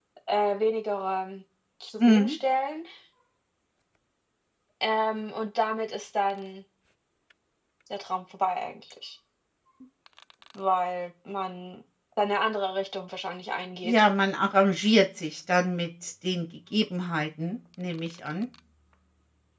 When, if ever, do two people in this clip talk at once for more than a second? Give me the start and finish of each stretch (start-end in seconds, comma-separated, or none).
none